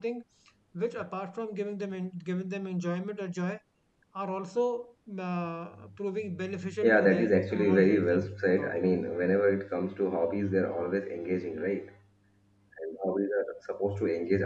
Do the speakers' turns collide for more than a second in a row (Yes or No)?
Yes